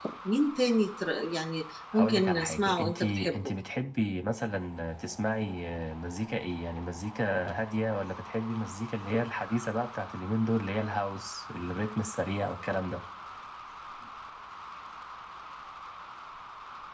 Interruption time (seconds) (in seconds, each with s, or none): 1.9 s